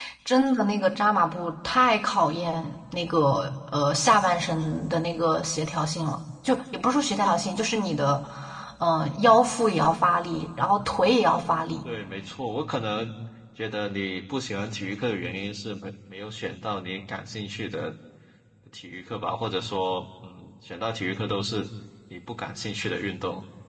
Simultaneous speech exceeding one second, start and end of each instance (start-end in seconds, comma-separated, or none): none